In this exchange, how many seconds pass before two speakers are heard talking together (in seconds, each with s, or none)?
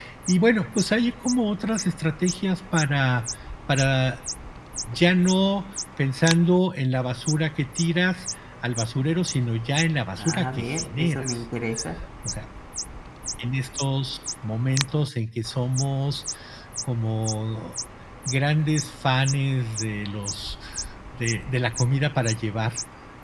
10.2 s